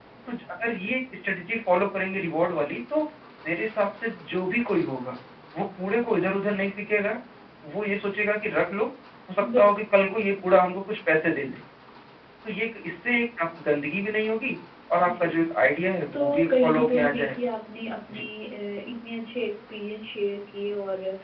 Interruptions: present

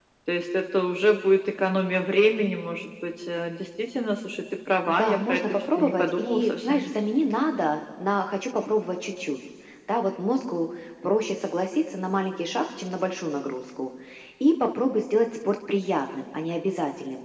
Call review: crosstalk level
present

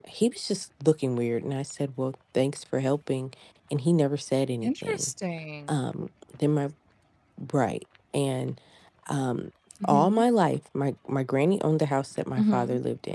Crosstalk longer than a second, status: none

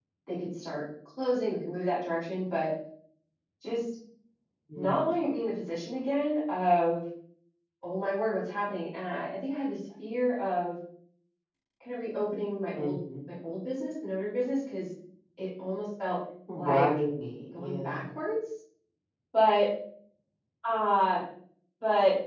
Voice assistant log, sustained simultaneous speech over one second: none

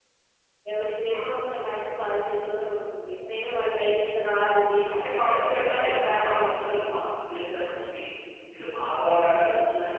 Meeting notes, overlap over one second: present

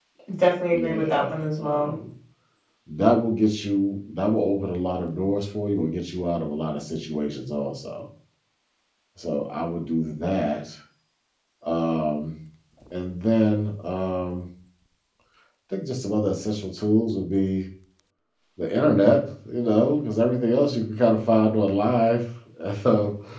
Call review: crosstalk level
present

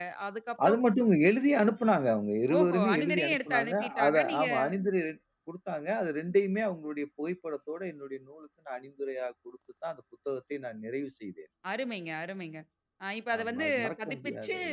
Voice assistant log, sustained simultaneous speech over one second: present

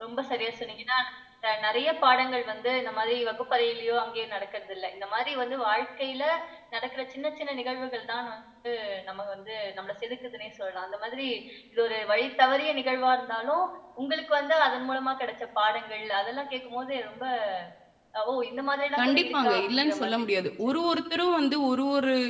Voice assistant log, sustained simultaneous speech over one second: present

